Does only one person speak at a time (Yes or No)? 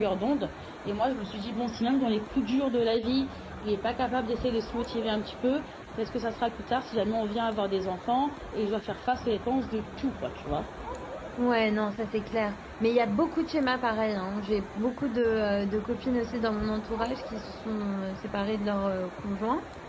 Yes